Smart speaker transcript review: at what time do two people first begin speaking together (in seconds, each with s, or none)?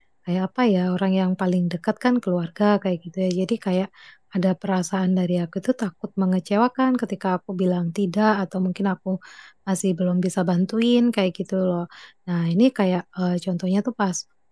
none